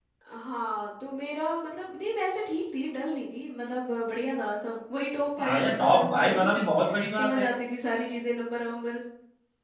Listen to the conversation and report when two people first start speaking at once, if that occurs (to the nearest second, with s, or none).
5 s